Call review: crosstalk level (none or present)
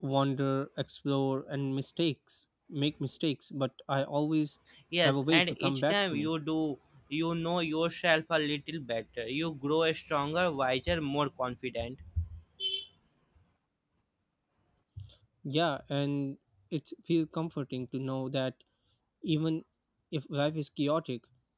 present